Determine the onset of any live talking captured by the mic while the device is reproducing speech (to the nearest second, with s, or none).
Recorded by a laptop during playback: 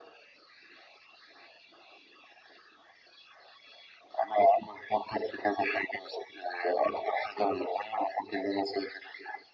none